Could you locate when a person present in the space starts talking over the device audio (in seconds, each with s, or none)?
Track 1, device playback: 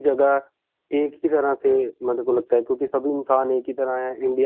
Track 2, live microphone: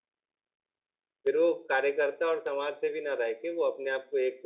1.2 s